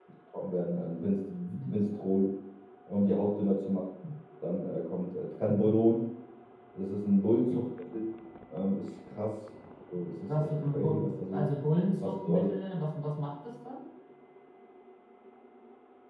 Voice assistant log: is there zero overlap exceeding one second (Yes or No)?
No